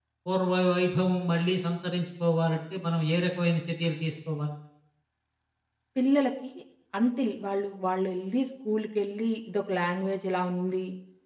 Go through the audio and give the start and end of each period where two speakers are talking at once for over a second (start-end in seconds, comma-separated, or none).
none